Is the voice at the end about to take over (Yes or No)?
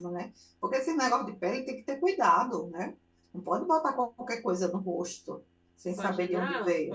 Yes